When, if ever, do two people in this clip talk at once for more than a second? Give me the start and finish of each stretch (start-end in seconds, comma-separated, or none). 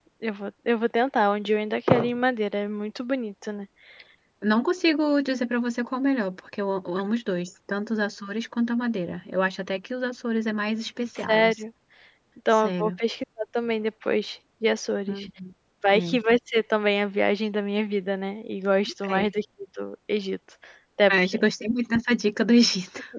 none